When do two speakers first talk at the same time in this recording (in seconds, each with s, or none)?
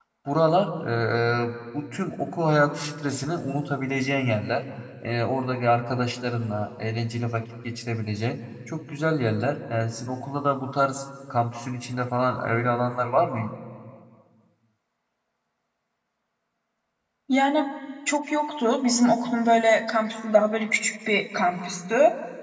none